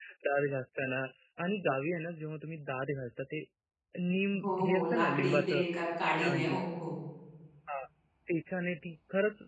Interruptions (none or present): present